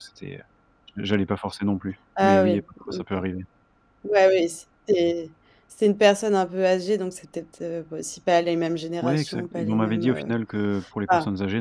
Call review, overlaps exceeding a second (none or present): present